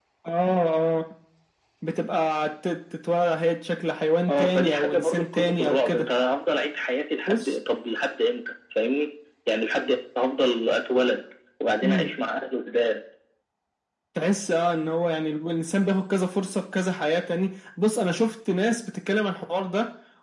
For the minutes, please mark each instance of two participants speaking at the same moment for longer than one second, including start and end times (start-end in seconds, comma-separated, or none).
4.3-6.0